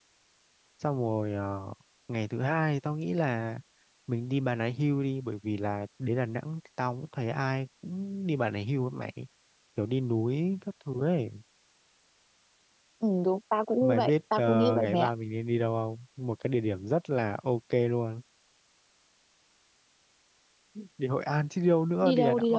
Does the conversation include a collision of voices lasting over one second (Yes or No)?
Yes